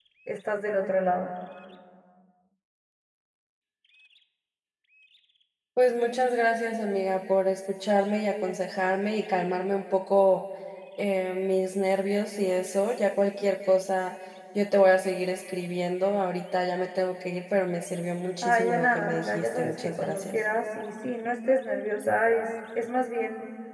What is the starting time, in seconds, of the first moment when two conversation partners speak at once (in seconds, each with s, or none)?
18.4 s